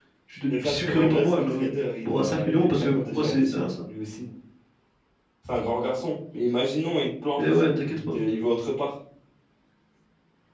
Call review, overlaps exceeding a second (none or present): present